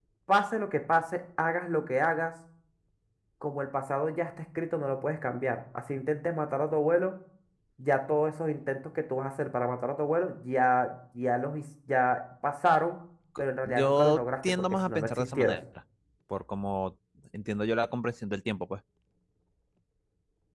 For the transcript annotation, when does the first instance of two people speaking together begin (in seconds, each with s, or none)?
13.4 s